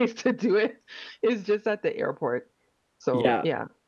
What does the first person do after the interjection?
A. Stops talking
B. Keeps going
A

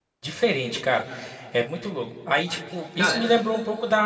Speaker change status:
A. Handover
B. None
B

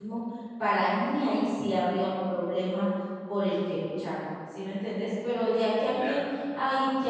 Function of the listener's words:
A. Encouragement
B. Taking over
A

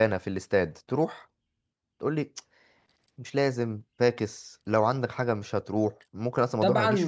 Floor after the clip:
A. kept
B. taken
B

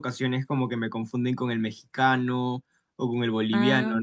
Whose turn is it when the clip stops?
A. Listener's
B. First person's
B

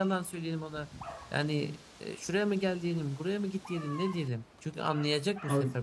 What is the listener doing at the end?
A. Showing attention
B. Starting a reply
A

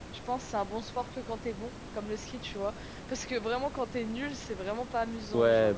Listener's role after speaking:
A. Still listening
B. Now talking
B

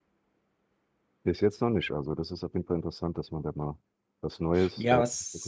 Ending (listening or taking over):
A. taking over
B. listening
A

